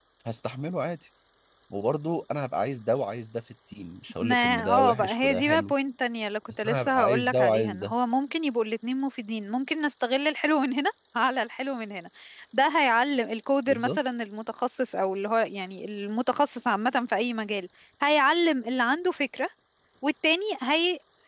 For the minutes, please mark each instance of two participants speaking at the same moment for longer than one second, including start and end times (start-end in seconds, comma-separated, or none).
4.2-5.7, 6.6-7.9